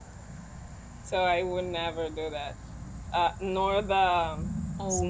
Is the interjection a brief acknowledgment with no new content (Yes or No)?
No